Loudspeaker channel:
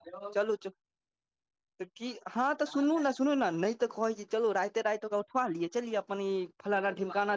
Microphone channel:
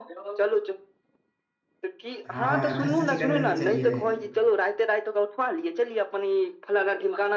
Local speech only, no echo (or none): हँ खस्सी जे कटबेने छलियै।